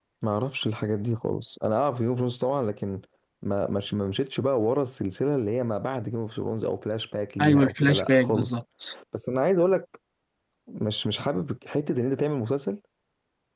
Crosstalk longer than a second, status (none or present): present